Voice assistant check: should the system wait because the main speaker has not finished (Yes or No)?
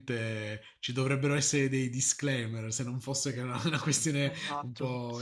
No